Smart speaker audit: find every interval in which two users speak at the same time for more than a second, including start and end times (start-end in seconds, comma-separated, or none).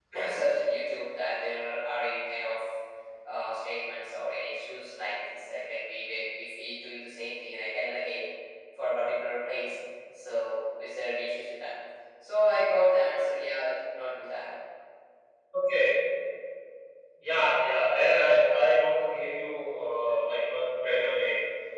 none